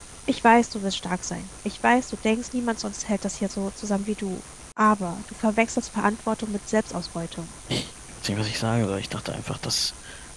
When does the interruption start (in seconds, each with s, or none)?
none